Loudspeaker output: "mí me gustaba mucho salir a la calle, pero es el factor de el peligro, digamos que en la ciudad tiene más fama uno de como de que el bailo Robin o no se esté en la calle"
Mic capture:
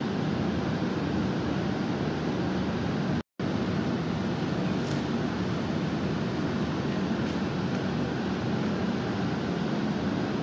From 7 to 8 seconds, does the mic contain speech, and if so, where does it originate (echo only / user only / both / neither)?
neither